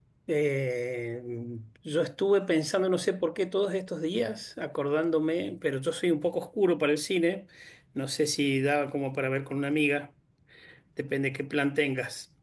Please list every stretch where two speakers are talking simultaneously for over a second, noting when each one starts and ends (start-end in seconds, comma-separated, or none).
none